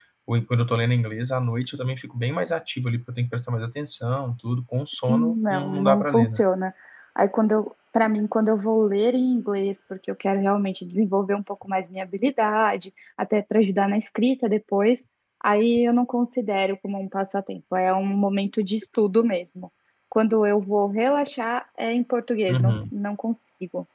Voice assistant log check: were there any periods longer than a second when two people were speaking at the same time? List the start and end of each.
5.1-6.4

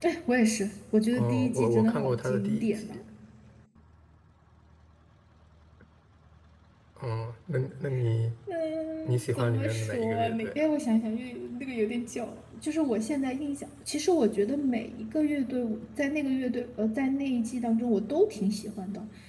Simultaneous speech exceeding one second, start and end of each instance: 1.1-3.0, 9.1-10.7

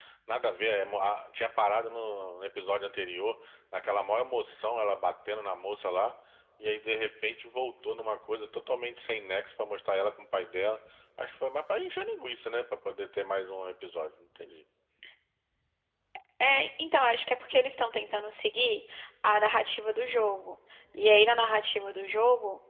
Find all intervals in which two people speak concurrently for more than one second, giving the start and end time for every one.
none

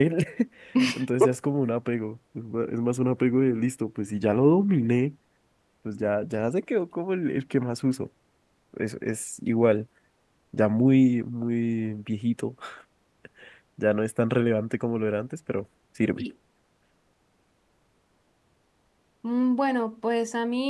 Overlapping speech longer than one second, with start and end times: none

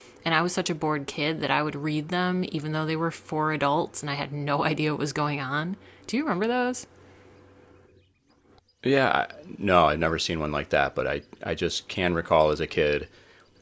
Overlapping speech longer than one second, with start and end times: none

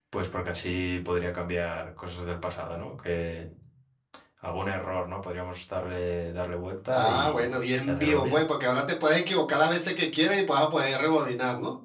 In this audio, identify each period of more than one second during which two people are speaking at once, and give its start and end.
6.9-8.4

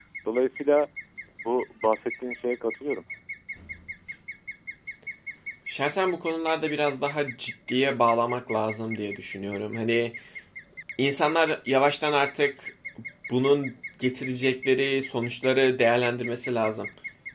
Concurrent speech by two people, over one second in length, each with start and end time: none

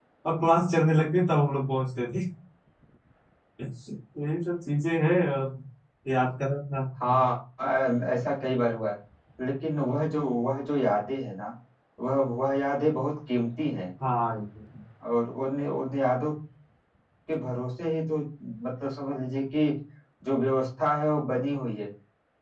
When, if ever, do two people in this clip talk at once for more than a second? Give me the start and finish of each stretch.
none

